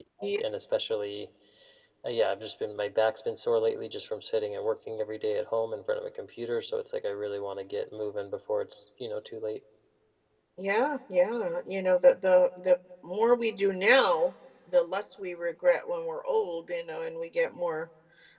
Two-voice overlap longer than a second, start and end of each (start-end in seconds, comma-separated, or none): none